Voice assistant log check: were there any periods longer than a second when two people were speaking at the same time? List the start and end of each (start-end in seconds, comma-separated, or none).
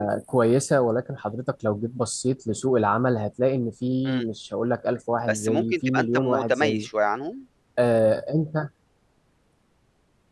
5.3-6.9